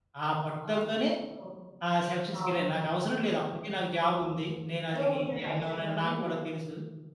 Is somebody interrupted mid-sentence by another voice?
Yes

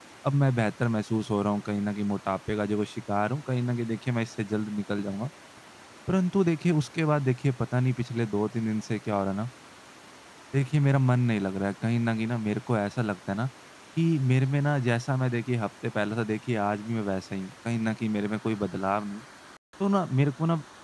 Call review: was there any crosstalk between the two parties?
No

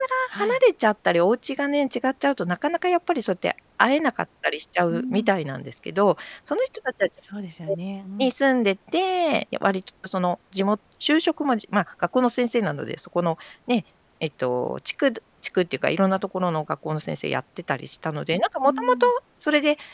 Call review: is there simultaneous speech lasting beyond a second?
No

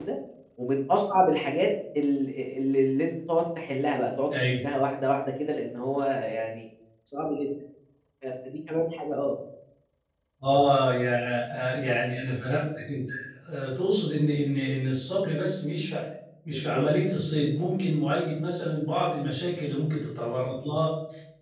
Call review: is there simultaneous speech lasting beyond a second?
No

